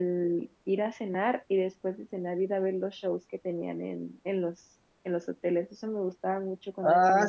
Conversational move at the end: taking over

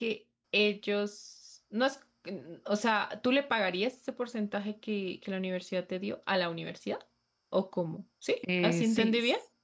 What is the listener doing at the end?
taking over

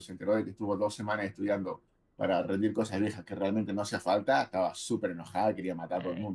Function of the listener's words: taking over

